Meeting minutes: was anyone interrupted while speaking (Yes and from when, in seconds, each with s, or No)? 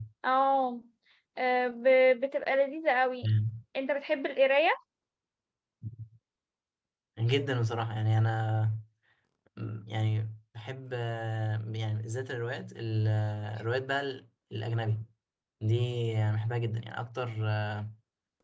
No